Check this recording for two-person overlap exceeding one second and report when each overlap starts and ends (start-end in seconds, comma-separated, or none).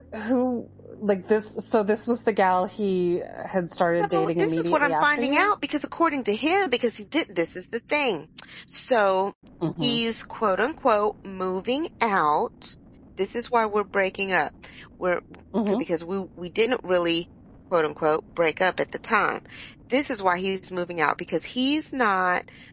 4.0-5.5